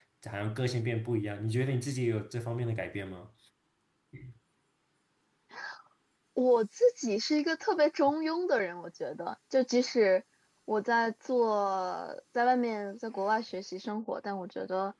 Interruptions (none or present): none